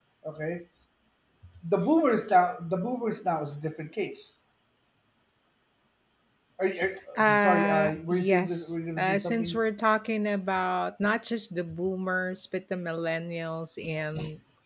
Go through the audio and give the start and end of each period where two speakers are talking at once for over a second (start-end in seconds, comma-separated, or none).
7.2-9.6